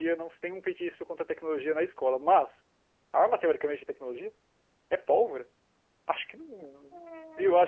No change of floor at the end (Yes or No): No